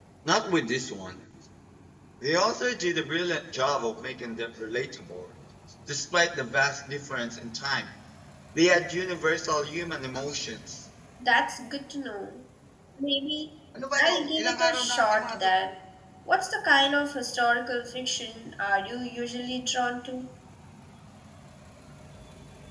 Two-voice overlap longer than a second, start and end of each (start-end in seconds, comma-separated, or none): 14.0-15.4